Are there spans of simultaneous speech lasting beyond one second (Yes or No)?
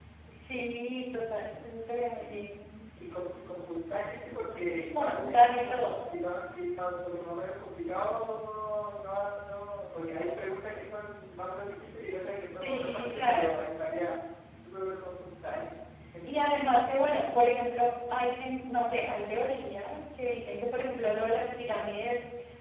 Yes